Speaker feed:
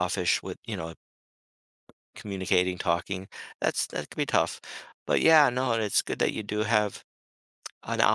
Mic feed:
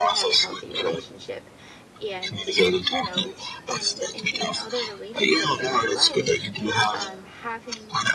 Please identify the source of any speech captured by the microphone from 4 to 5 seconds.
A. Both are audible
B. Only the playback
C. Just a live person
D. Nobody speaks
A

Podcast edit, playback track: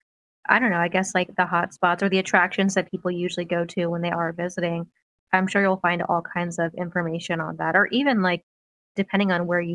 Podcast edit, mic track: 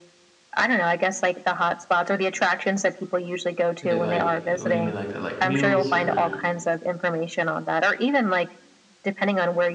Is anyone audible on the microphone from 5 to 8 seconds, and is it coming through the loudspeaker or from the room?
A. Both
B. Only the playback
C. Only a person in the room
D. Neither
A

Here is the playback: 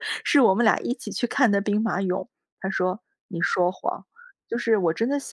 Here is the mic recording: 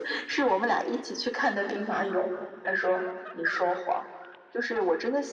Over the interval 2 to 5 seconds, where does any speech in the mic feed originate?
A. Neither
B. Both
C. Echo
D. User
C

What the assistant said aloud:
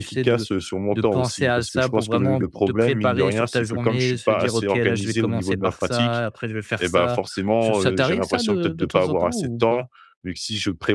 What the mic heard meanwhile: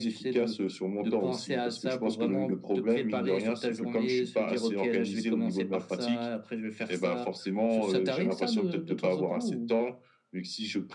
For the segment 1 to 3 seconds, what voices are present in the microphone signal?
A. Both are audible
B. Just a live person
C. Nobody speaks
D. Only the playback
D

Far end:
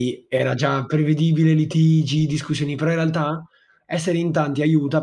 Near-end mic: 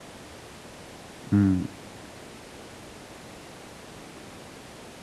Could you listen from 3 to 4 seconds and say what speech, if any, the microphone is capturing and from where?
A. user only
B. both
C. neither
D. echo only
C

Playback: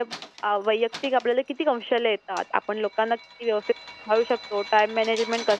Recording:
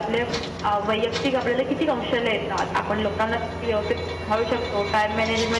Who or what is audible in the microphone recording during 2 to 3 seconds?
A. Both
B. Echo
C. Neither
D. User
B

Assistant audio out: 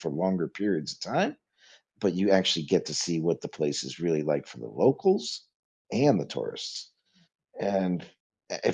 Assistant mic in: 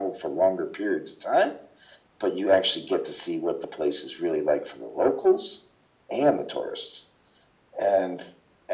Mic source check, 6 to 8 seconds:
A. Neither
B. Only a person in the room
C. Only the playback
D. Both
C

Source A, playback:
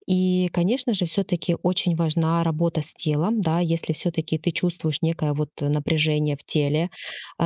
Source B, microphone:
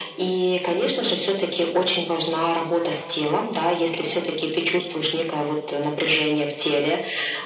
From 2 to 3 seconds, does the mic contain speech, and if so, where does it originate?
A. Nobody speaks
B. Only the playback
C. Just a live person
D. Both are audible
B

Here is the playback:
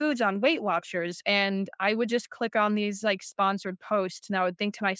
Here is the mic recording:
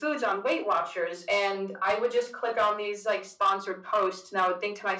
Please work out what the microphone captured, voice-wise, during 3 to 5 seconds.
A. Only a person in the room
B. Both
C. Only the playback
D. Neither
C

